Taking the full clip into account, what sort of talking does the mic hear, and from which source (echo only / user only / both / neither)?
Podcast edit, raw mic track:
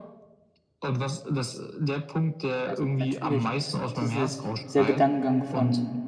both